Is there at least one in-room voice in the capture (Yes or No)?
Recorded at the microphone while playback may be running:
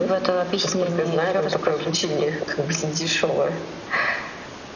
No